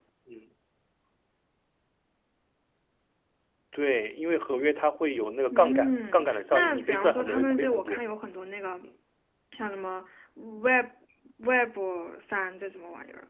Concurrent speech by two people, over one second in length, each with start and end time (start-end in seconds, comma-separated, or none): 5.5-8.0